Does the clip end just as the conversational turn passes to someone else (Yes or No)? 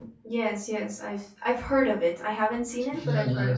Yes